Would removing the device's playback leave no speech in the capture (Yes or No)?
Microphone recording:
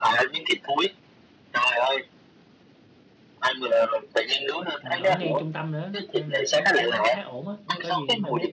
No